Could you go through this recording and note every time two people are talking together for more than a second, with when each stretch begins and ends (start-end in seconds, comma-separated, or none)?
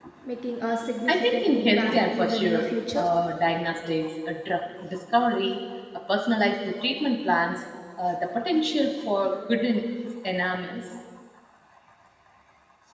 1.1-3.0